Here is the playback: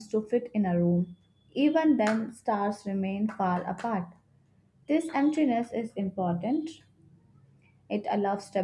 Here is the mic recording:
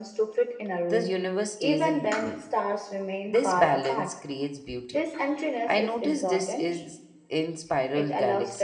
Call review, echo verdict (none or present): present